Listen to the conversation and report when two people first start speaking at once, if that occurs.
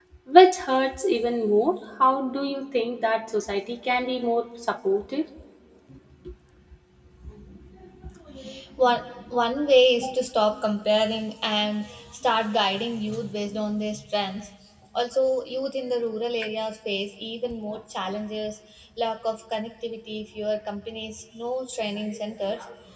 none

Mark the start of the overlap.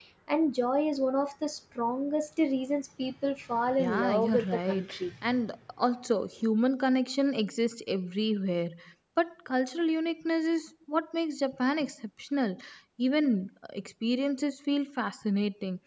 3.8 s

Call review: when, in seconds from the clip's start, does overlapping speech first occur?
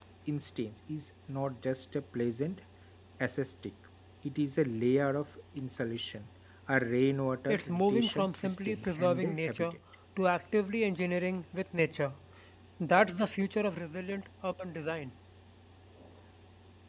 7.5 s

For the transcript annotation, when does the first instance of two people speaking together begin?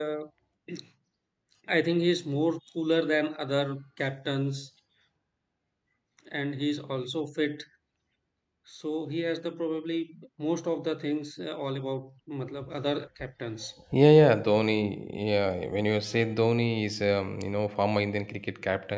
none

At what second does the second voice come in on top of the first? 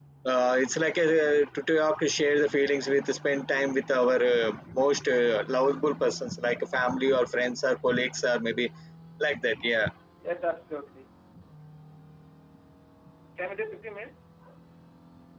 none

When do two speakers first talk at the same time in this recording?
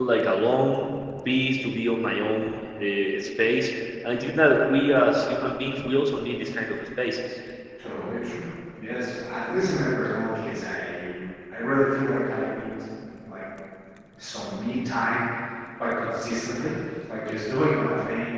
none

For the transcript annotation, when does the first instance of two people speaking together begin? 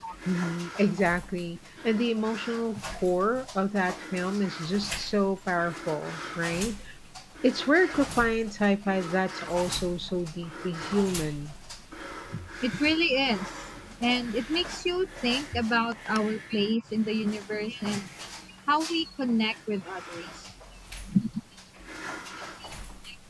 none

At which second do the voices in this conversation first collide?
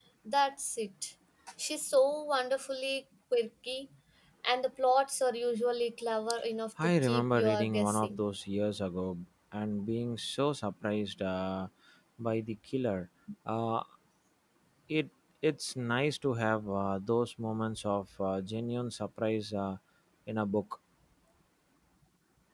6.8 s

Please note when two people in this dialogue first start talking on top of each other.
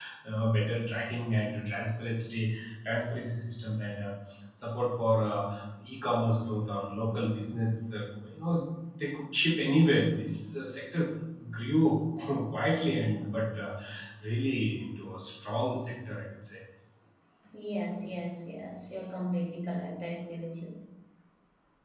none

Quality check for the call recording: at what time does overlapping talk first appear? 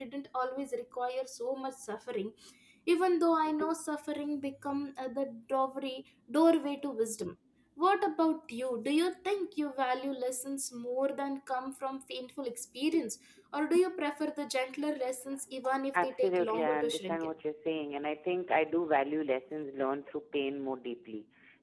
15.9 s

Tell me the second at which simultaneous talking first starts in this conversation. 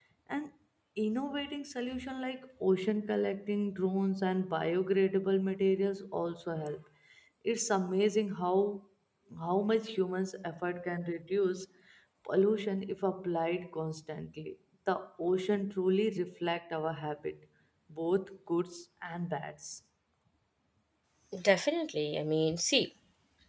none

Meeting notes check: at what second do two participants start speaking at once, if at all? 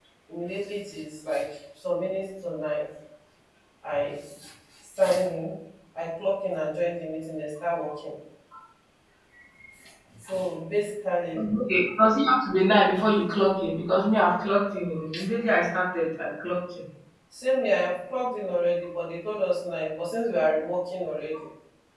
none

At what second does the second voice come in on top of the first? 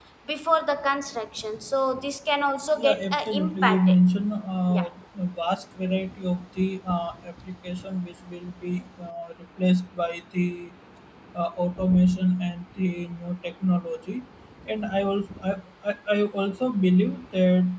2.8 s

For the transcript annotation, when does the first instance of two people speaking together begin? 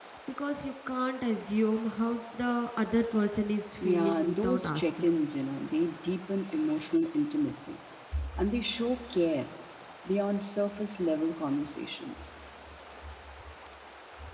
3.8 s

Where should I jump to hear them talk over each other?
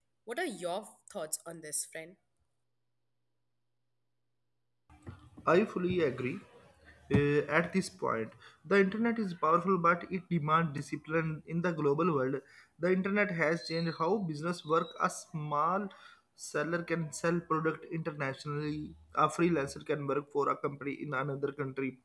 none

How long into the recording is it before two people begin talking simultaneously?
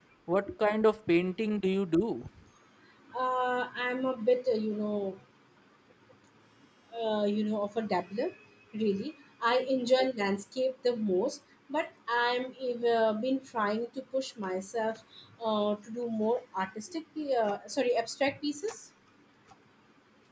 none

